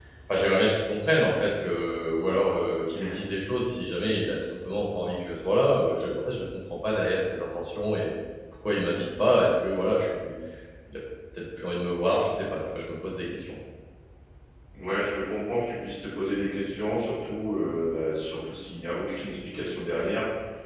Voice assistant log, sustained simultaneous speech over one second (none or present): none